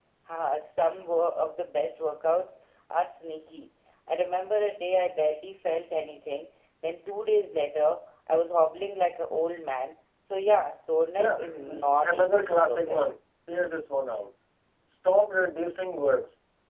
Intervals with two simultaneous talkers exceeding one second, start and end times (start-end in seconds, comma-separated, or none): 11.2-13.1